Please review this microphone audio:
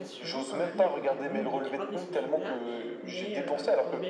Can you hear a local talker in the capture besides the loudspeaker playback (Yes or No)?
Yes